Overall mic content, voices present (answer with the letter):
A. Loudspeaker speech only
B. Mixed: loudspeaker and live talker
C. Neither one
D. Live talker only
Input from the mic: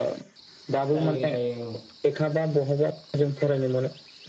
B